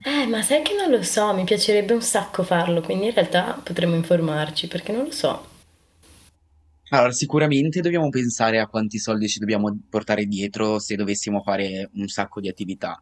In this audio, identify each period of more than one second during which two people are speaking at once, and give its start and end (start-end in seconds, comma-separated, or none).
none